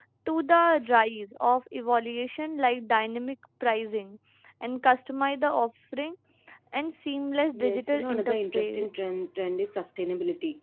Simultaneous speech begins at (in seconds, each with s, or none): 7.5 s